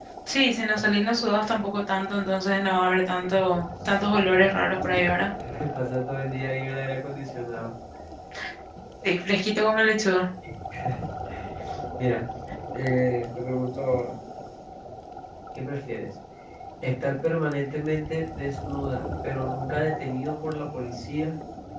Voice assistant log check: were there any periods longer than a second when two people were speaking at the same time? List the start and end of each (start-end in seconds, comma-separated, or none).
none